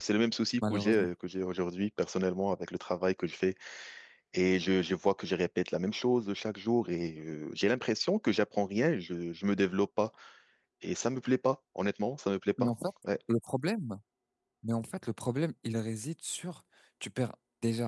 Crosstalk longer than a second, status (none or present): none